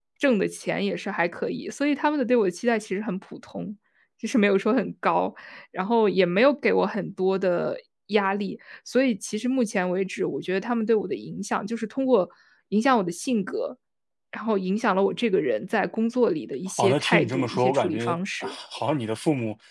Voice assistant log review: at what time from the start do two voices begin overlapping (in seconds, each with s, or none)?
16.8 s